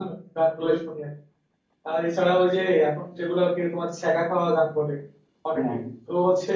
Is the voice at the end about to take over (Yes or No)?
No